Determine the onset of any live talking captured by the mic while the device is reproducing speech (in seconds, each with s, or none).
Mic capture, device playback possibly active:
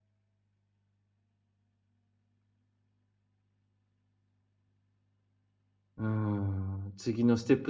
6.0 s